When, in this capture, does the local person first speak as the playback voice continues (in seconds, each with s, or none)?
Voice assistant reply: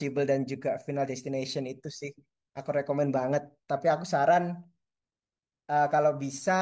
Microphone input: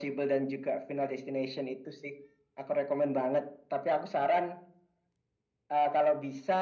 none